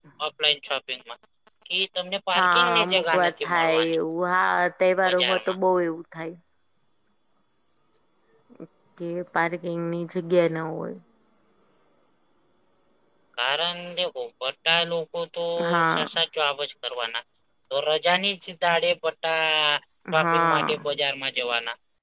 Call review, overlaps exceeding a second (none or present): present